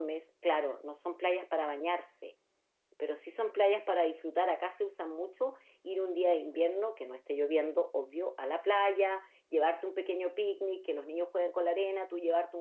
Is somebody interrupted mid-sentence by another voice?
No

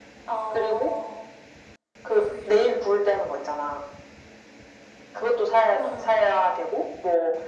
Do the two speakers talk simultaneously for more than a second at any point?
No

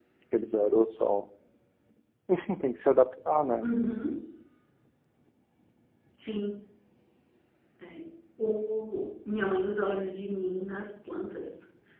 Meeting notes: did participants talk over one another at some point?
No

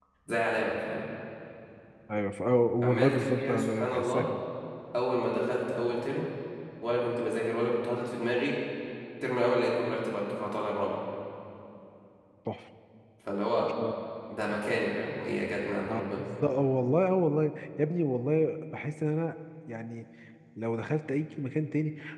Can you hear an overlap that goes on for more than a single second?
Yes, from 2.8 s

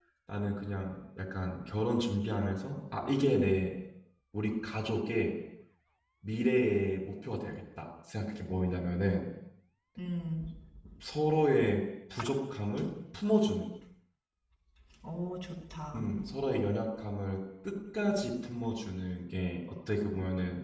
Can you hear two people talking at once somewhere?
No

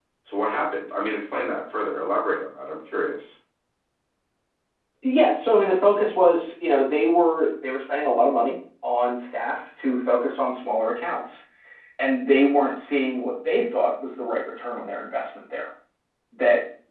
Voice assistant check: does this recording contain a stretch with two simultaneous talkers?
No

